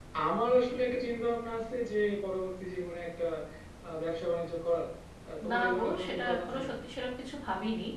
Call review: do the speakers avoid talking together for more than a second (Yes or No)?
No